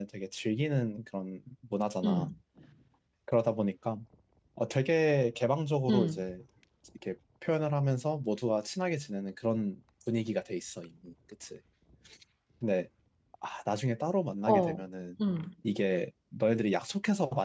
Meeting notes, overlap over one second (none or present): none